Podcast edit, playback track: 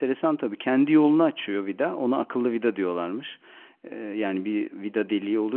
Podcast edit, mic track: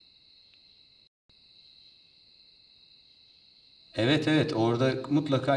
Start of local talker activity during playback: 3.9 s

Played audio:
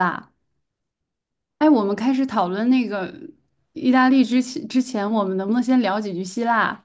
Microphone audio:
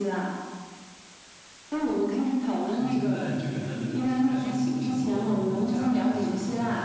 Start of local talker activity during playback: 2.7 s

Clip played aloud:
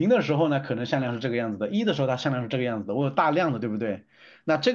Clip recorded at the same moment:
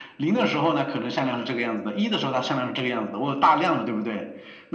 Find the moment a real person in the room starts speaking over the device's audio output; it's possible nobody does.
none

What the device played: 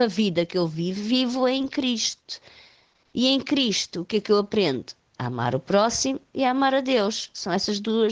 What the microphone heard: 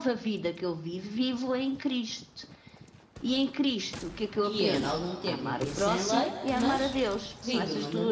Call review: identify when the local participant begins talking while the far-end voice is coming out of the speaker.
4.4 s

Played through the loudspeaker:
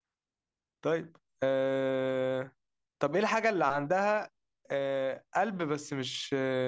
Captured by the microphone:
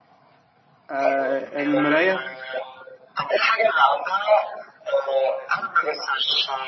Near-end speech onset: 0.9 s

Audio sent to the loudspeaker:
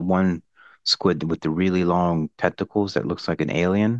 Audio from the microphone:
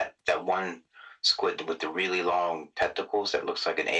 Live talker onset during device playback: none

